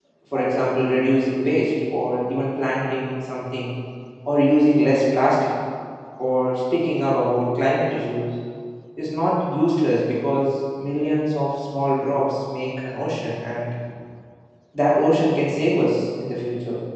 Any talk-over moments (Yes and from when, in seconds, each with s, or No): No